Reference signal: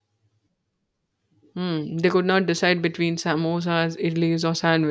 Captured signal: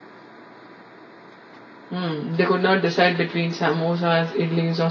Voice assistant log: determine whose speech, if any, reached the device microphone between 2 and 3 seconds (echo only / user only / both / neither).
echo only